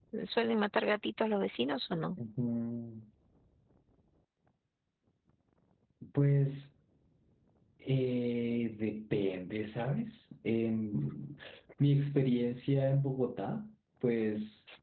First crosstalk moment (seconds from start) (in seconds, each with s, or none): none